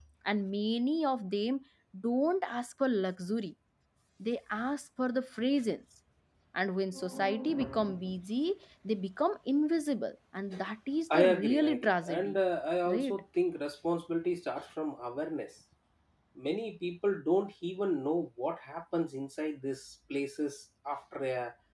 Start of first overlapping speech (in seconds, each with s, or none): 11.1 s